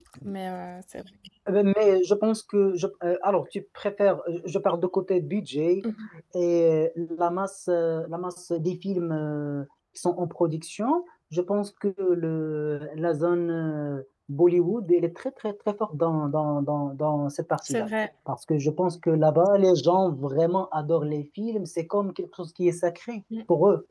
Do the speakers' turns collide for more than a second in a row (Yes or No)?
No